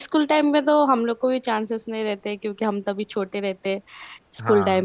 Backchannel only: Yes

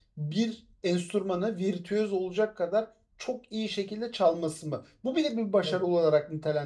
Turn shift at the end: No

